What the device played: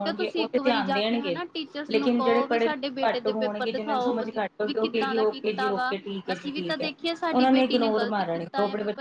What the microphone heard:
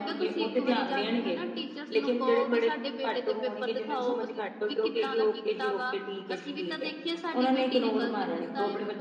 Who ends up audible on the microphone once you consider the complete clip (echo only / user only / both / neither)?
echo only